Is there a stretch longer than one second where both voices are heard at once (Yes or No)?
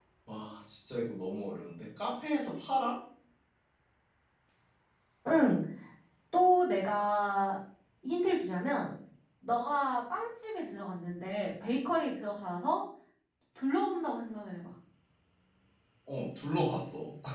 No